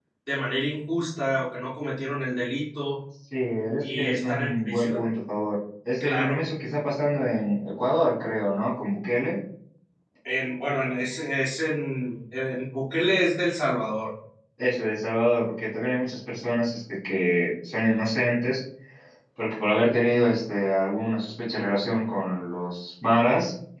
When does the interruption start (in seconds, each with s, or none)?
3.8 s